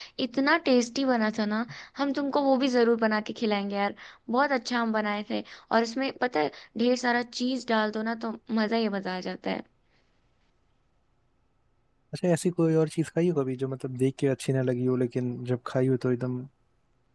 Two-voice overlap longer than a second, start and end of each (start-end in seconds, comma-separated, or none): none